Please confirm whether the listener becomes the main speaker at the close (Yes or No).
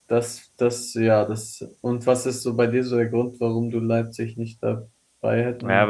Yes